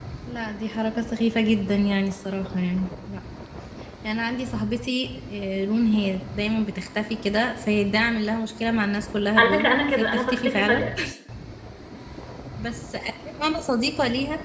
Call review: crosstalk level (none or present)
present